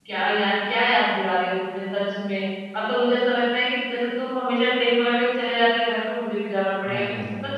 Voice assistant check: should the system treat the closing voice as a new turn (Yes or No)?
No